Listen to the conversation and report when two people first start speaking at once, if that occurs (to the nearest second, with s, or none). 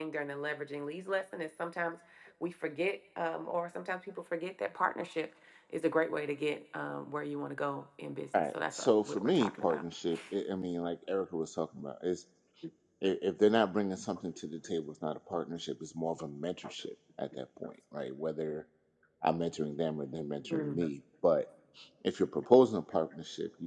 8 s